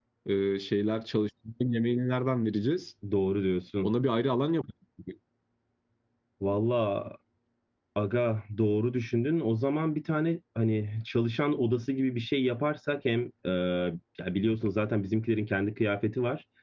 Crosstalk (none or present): none